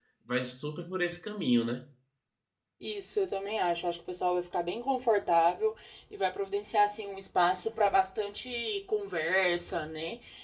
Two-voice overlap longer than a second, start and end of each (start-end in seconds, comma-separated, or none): none